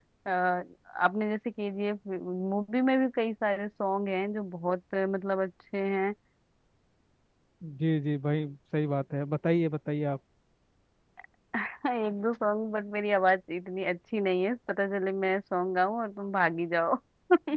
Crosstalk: none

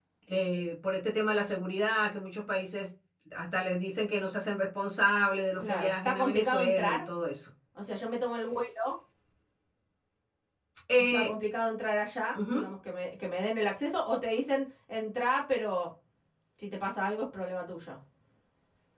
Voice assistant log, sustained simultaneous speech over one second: present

